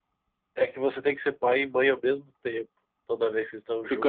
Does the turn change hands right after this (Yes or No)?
Yes